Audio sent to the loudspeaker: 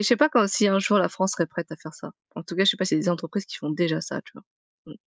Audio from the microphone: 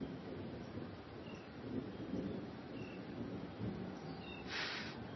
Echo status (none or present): none